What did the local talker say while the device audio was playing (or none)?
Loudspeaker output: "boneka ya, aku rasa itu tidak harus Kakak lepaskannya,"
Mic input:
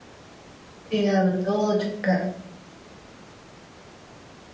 Iya betul juga.